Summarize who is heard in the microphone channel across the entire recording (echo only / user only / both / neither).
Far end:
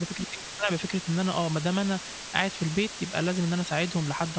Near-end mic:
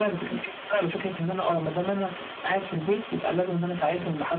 echo only